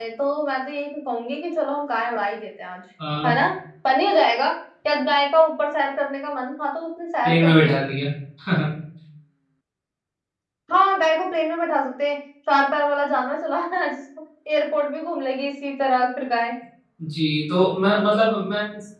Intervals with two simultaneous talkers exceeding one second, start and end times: none

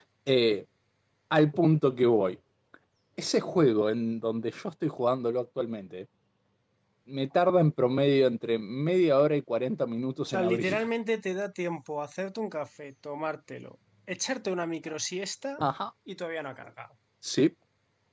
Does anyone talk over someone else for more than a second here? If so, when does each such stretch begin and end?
none

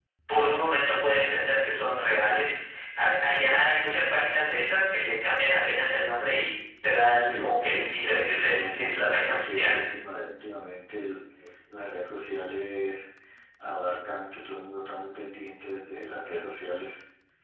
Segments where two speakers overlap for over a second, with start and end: 7.3-9.7

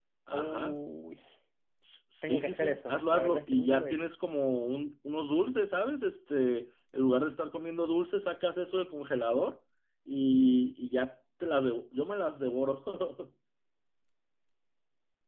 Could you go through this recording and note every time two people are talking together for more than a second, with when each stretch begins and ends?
2.2-4.1

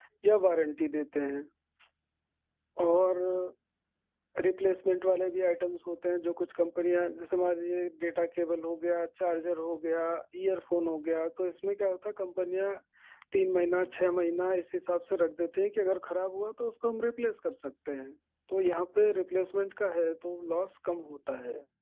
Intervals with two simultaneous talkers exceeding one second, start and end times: none

